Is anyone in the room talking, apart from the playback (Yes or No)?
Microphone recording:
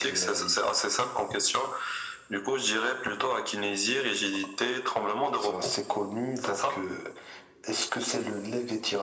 No